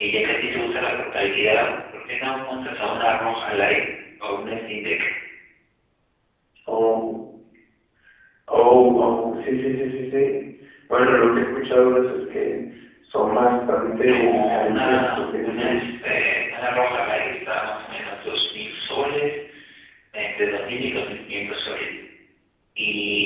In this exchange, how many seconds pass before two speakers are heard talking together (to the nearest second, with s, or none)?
14 s